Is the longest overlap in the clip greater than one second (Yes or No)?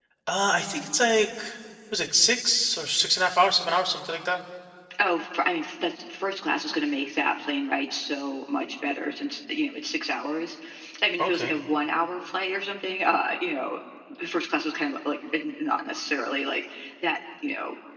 No